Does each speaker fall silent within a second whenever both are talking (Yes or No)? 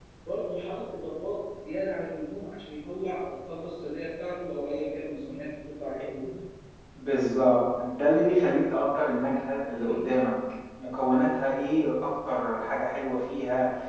Yes